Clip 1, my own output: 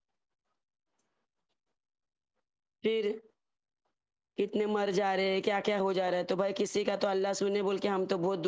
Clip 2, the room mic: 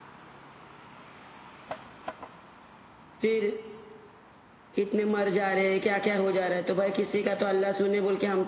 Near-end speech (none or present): none